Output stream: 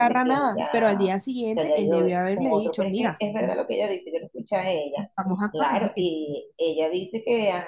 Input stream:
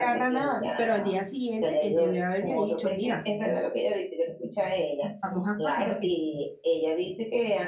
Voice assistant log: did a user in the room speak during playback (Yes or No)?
No